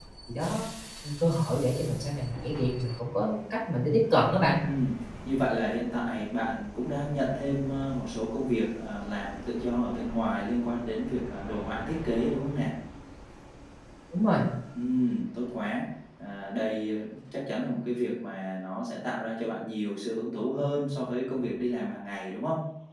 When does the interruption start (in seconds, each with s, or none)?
none